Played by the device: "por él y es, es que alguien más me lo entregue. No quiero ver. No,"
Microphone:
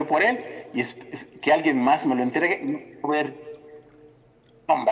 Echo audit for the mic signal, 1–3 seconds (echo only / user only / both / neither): echo only